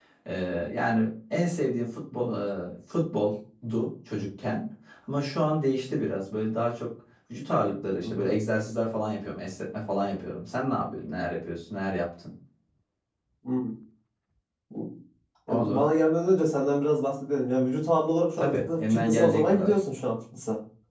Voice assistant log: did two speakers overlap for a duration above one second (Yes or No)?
Yes